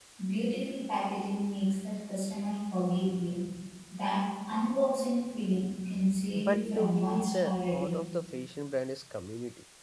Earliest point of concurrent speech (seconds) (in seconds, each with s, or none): 6.4 s